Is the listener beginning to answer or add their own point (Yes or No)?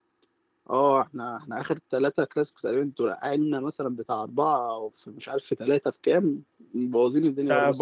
Yes